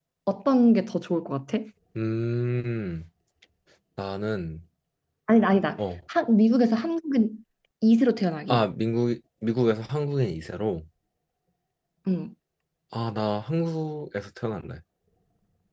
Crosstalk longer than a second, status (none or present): none